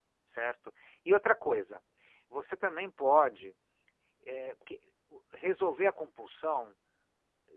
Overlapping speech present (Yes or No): No